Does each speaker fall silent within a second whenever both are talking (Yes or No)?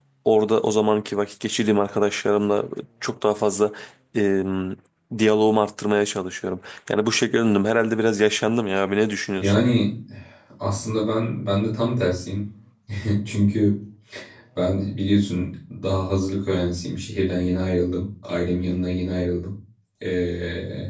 Yes